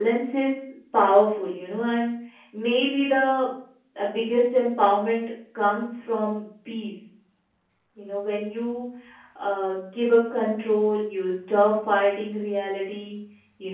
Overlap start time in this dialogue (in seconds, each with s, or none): none